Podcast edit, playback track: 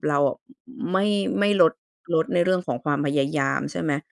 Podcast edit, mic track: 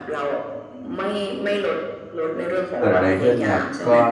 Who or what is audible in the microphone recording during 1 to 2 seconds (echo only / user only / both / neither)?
echo only